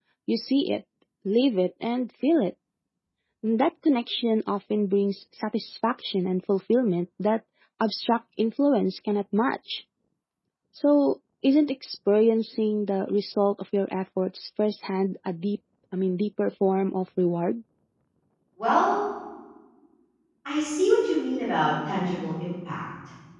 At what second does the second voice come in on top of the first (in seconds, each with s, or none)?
none